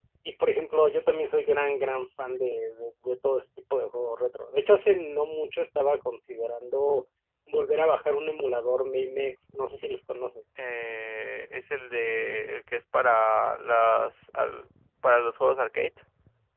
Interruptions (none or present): none